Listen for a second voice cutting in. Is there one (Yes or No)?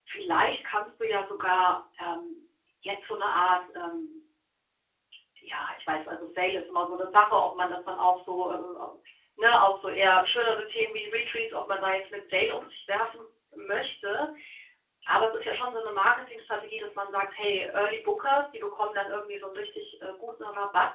No